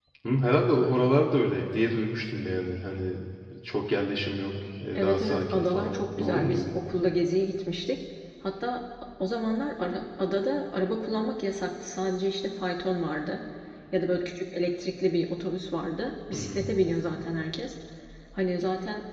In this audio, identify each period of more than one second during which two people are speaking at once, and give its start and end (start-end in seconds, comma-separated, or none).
5.0-6.8